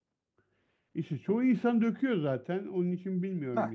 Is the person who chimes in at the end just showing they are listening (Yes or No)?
Yes